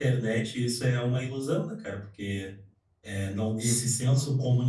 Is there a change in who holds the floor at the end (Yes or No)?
No